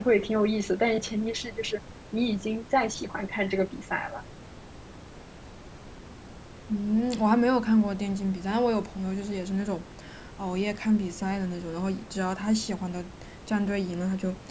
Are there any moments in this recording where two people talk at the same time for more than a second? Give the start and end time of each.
none

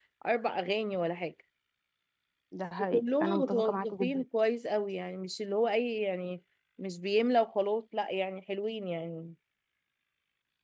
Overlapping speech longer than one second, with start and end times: 2.9-4.2

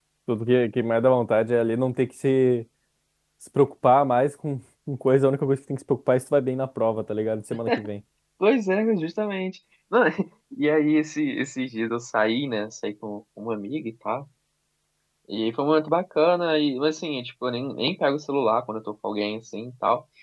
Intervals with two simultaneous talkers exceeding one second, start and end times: none

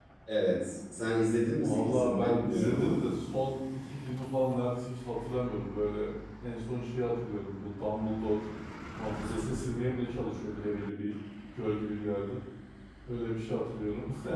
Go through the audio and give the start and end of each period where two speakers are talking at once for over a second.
1.6-3.0

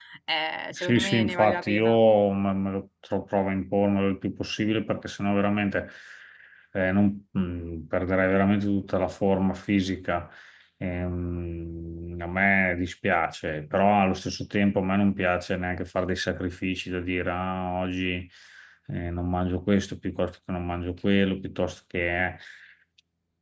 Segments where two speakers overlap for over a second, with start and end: 0.7-2.0

